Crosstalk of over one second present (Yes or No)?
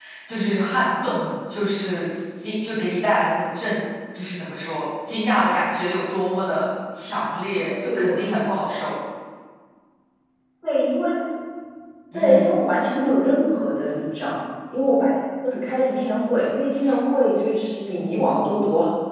No